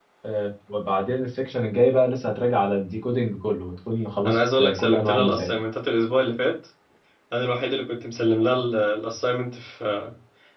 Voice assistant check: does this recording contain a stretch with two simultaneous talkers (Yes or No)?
Yes